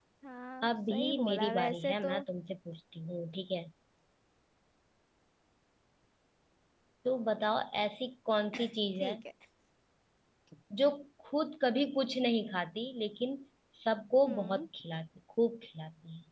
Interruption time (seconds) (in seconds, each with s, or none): 0.6 s